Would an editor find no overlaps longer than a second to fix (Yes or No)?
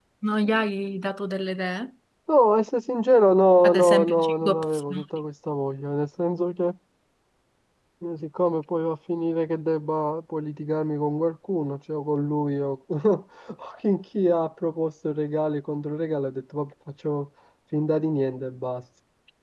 No